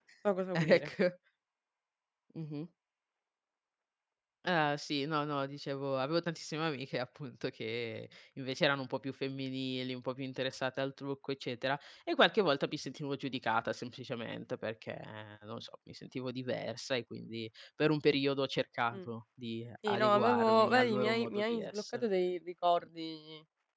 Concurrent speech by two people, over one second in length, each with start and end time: 19.9-22.0

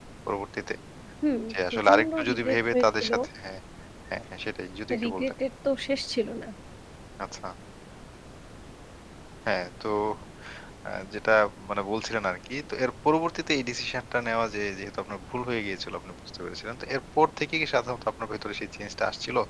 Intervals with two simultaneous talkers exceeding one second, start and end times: 1.5-3.1

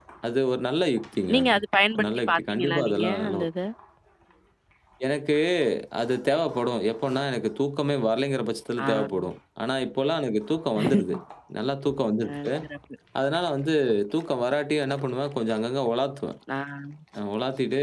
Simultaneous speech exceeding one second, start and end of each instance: 2.0-3.5

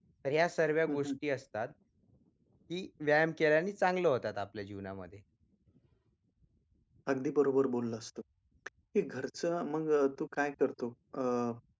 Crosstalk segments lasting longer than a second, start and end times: none

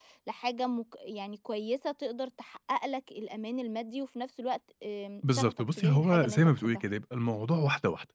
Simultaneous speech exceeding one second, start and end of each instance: 5.3-6.8

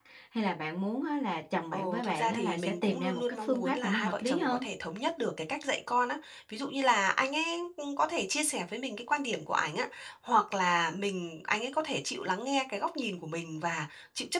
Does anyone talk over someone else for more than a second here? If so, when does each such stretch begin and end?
1.7-4.6

